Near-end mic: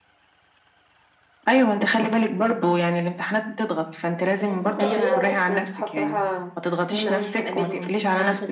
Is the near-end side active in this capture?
Yes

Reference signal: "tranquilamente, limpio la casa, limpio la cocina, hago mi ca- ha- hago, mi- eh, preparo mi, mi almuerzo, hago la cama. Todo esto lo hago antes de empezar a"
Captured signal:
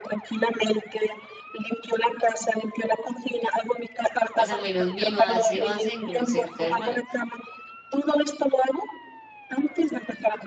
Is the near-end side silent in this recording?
No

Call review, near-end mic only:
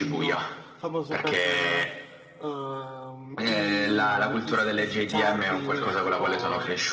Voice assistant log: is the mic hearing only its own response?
No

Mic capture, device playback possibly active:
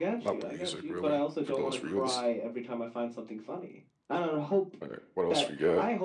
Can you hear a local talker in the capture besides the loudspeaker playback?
Yes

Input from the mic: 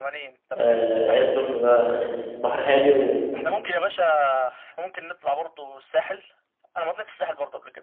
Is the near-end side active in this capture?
Yes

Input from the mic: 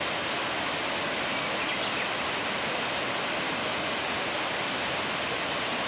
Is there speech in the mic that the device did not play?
No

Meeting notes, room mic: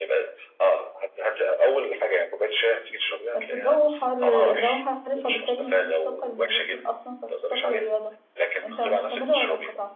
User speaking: Yes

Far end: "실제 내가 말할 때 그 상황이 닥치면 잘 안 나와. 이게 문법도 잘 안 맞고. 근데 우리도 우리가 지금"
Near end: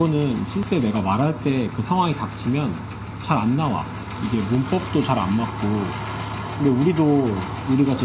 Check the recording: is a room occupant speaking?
No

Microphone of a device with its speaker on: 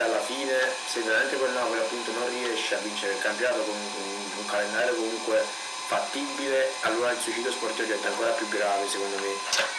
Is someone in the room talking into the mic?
No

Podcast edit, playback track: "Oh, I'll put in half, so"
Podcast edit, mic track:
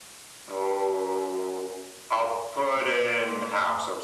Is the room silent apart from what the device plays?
No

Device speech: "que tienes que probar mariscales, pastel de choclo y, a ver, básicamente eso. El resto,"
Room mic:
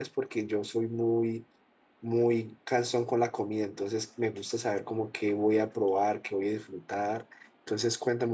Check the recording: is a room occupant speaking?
Yes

